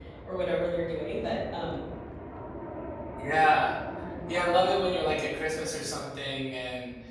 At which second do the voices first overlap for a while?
none

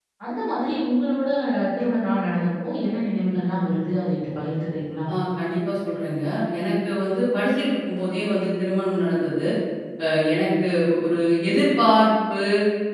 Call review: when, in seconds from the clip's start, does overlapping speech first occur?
none

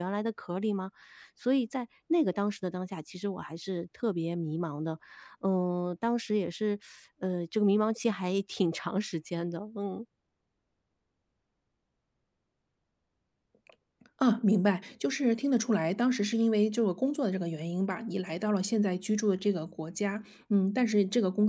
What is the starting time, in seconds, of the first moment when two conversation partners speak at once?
none

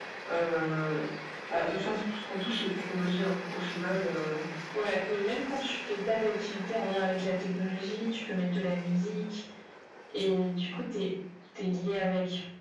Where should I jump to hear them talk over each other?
none

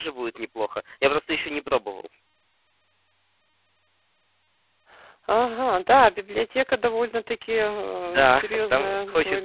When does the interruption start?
8.0 s

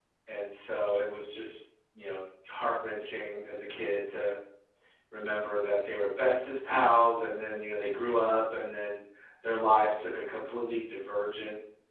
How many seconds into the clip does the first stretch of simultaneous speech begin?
none

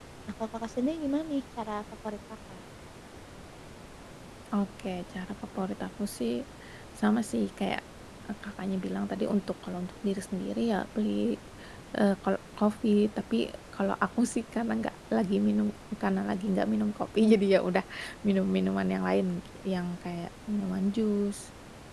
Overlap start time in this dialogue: none

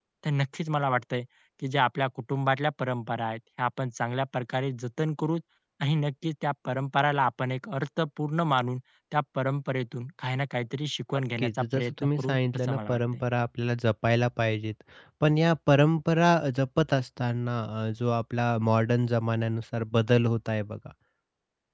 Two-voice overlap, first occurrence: 11.4 s

